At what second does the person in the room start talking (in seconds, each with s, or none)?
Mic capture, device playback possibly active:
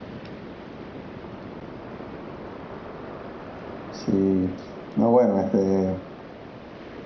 3.9 s